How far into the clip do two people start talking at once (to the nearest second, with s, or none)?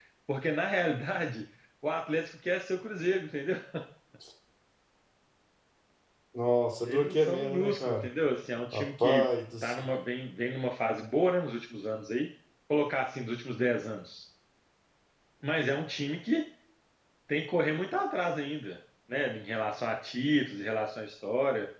7 s